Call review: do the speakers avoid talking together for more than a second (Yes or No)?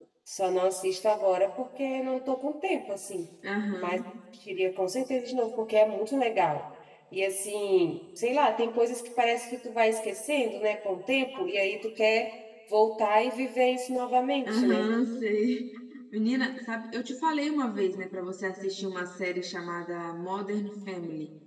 Yes